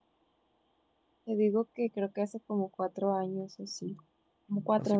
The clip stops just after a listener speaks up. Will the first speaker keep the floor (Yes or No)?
No